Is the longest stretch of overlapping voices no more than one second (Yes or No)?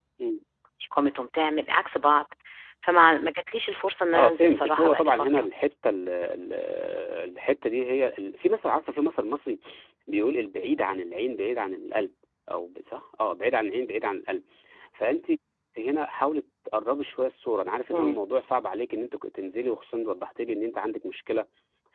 No